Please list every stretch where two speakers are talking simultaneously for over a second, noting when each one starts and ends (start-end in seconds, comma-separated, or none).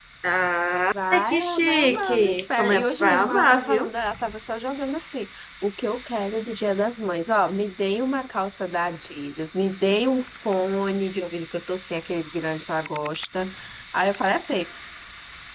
1.1-3.8